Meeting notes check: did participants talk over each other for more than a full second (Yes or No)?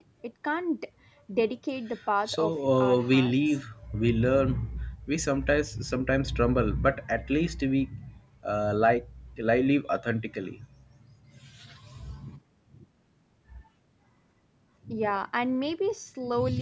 Yes